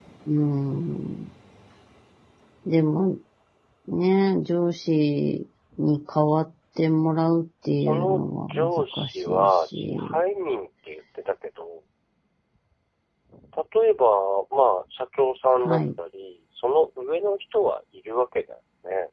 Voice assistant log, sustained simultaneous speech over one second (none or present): present